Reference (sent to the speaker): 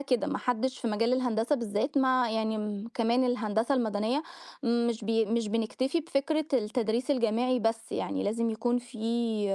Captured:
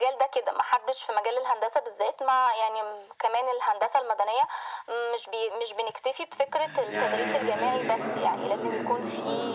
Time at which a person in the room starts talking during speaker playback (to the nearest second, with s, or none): 6 s